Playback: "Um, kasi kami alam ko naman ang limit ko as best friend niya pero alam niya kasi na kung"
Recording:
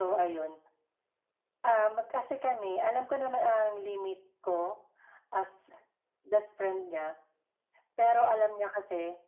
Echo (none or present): present